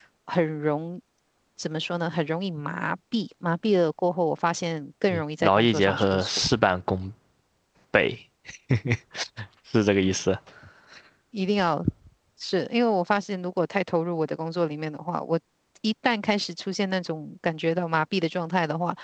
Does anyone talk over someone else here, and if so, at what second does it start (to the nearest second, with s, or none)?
5 s